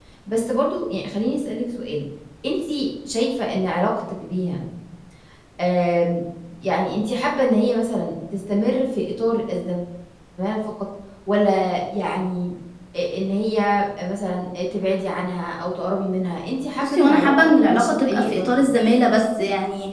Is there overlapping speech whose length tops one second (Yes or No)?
Yes